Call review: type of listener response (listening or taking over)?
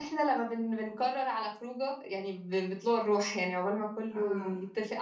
listening